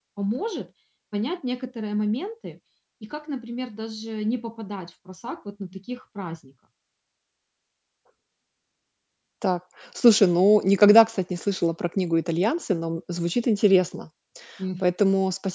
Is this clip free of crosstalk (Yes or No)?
Yes